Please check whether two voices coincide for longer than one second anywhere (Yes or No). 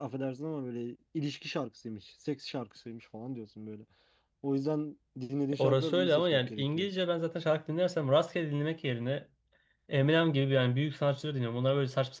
Yes